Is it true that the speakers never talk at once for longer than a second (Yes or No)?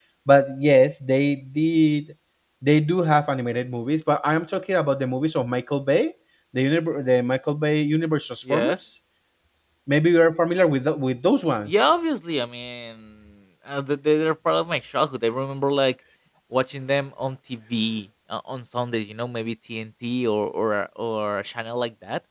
Yes